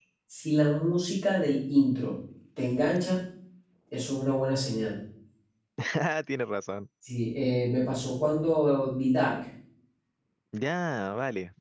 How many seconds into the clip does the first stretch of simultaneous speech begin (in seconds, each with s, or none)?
none